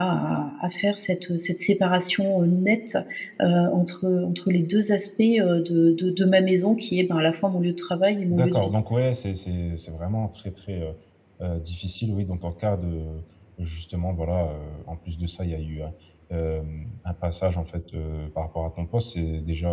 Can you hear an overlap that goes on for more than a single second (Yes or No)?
No